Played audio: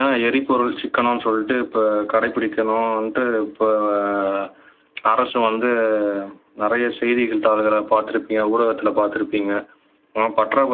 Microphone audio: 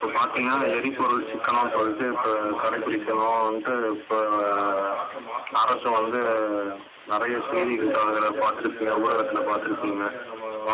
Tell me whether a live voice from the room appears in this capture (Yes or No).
Yes